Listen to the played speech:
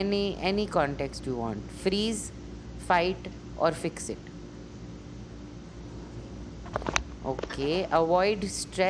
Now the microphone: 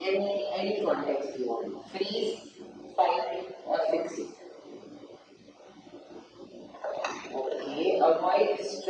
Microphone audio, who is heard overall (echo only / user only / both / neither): echo only